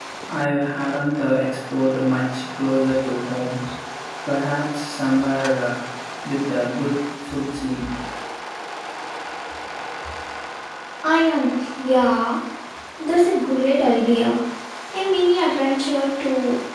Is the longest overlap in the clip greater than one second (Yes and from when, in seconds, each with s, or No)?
No